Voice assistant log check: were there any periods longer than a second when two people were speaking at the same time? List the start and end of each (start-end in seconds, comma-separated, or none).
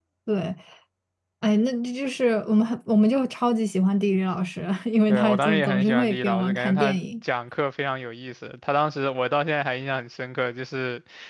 5.1-7.0